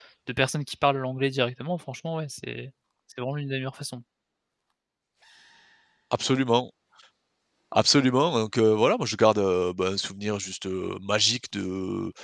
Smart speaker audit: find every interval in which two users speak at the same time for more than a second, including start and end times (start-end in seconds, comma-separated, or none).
none